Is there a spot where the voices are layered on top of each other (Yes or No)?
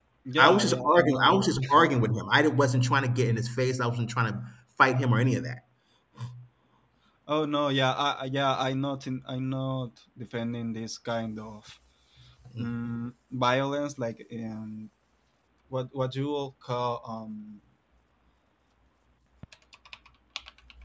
Yes